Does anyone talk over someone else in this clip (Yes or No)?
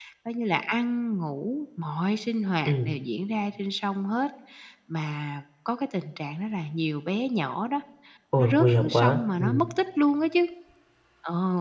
Yes